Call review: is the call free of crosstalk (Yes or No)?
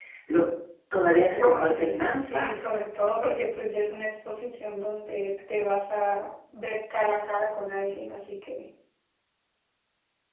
No